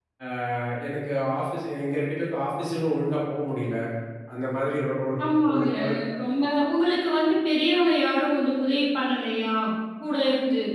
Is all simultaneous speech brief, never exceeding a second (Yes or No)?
Yes